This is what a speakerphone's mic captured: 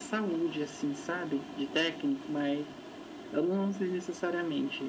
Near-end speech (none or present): none